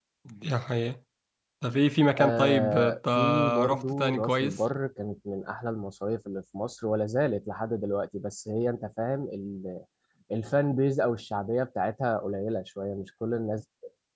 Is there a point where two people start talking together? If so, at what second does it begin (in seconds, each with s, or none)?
2.2 s